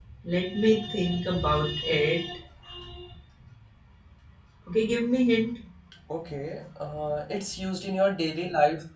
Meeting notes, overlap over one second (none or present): none